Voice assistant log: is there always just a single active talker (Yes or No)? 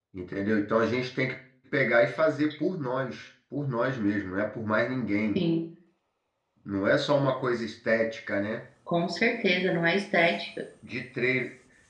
Yes